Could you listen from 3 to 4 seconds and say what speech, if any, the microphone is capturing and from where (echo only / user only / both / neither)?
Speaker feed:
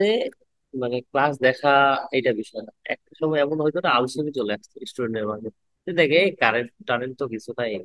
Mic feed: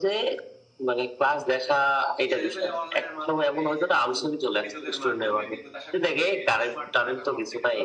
both